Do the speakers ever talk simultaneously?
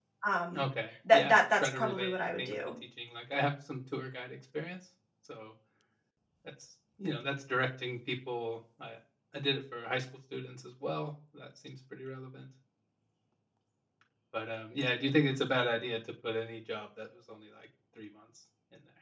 Yes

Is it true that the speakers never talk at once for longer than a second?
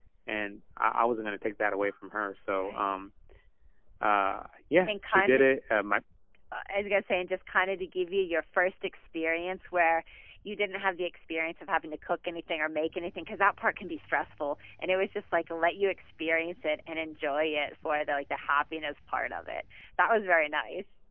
Yes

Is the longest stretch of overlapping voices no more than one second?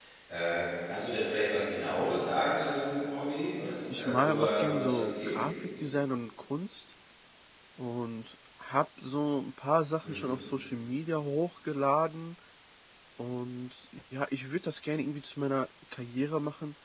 No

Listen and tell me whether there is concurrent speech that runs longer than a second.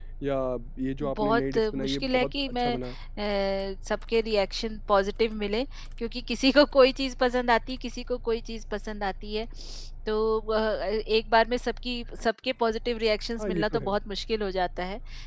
Yes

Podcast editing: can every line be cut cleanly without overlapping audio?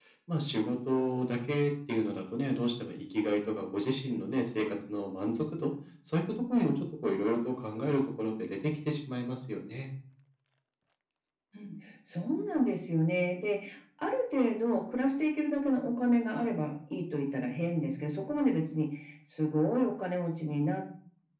Yes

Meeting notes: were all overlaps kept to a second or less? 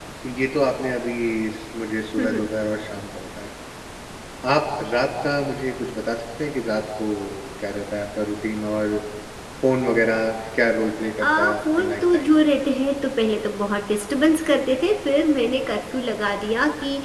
No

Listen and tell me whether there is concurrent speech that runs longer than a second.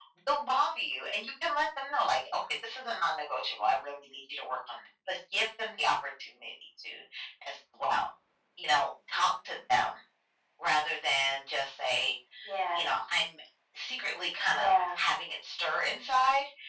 No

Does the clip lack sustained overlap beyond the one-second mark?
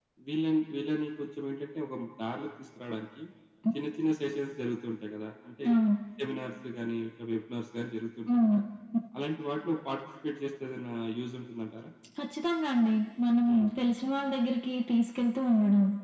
Yes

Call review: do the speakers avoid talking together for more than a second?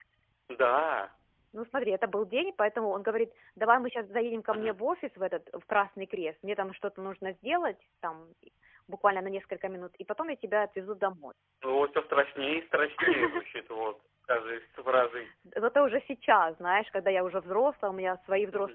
Yes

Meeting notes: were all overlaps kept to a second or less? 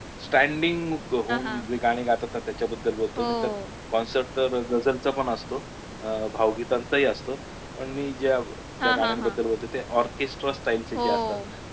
Yes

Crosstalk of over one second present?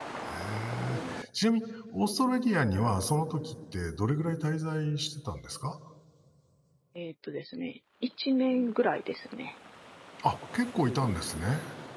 No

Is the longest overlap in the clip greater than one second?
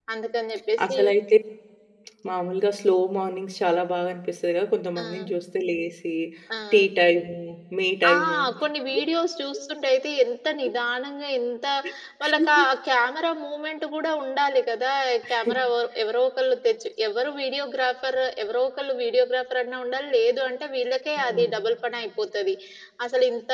No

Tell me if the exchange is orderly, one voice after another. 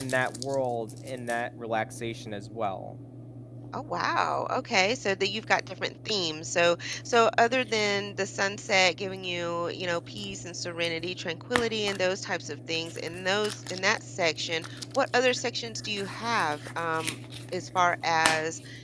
Yes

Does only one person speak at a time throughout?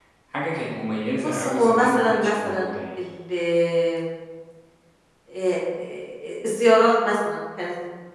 No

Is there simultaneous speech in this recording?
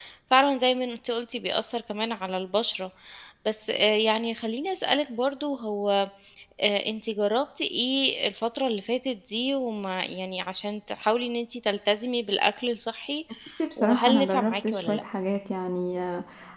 Yes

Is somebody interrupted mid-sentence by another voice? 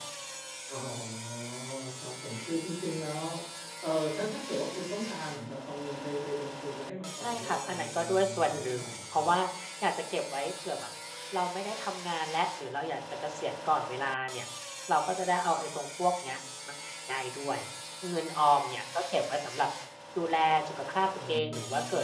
Yes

